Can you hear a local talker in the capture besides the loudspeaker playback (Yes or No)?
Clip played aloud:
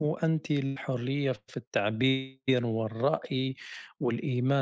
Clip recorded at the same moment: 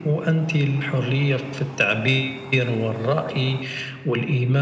No